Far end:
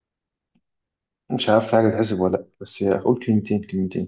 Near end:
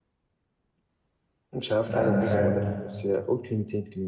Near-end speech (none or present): present